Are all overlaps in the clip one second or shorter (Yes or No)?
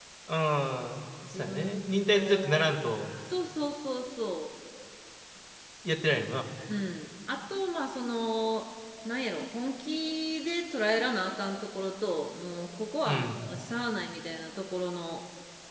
No